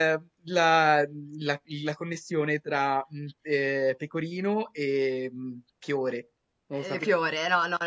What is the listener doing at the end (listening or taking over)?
taking over